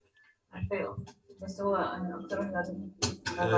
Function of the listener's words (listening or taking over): taking over